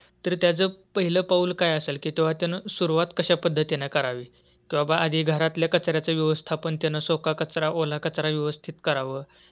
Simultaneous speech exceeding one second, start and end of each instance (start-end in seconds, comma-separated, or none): none